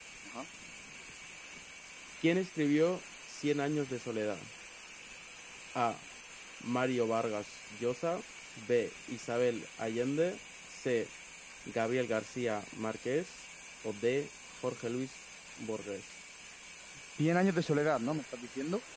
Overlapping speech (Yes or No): No